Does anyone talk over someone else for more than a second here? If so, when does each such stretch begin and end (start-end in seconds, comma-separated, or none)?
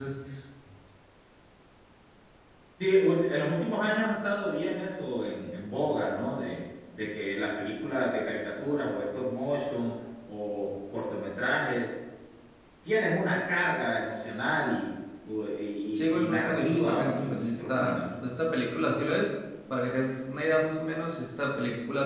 15.9-18.1